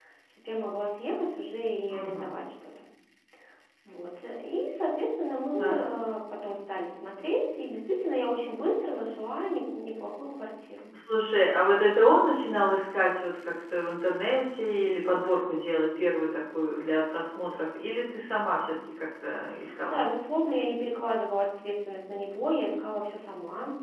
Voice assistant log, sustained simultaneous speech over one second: none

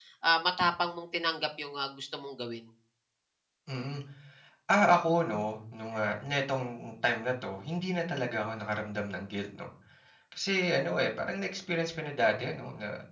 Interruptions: none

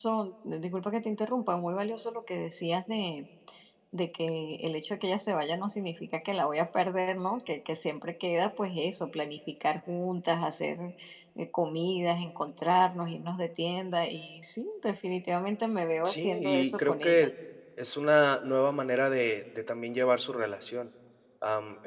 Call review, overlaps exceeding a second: present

